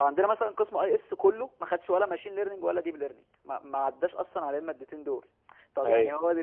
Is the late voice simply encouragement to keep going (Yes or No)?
Yes